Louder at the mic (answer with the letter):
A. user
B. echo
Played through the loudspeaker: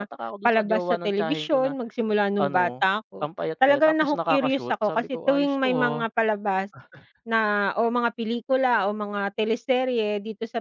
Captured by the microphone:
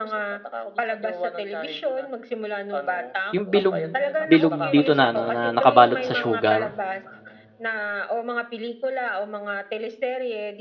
A